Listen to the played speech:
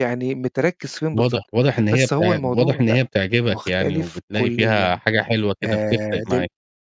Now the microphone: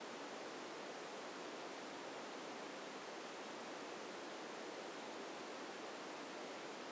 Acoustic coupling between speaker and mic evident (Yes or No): No